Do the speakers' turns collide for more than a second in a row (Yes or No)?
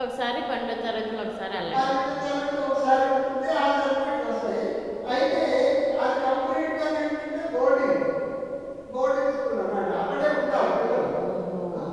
No